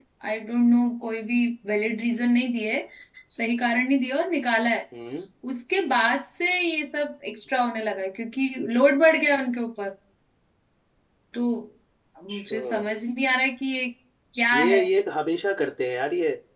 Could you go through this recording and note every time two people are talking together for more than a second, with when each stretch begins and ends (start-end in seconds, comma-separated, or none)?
none